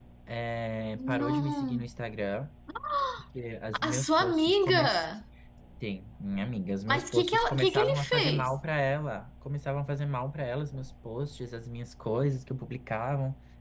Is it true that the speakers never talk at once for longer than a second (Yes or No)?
No